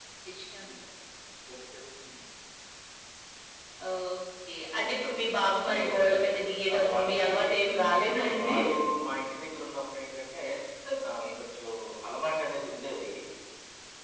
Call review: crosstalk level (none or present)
present